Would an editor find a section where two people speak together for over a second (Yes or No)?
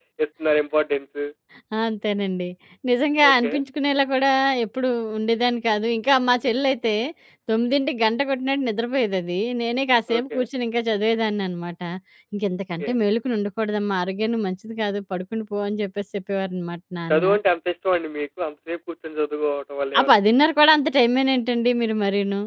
No